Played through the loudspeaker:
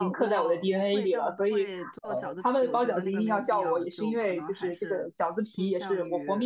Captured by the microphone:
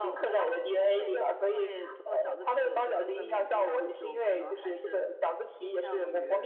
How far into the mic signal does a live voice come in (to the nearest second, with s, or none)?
none